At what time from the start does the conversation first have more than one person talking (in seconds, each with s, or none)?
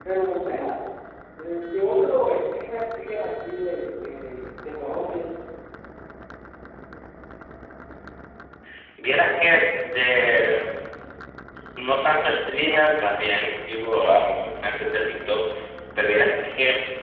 none